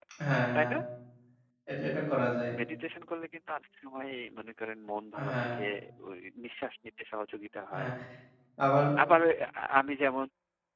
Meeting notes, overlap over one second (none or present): none